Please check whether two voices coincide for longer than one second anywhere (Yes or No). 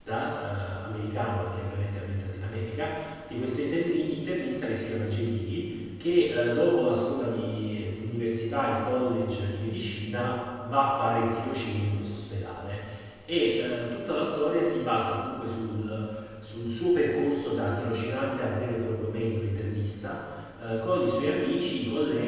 No